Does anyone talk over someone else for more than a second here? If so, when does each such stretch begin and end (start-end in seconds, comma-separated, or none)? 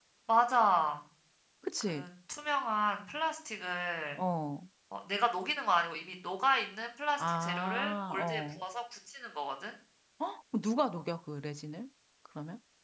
7.2-8.6